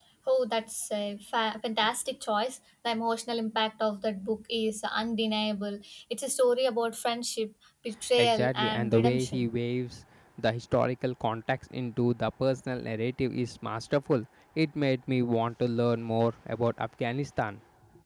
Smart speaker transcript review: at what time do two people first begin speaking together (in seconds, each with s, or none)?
8.2 s